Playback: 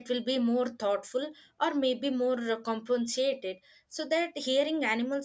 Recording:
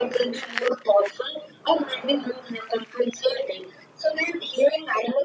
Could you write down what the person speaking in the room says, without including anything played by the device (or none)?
none